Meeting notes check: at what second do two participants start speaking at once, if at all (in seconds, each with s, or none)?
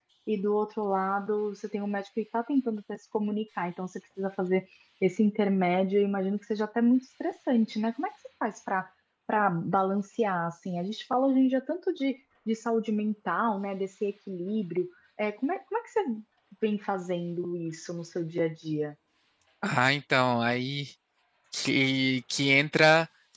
none